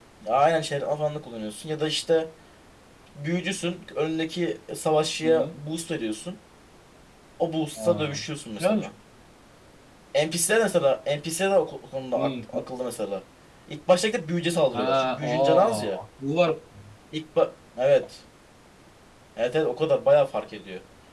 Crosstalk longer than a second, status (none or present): present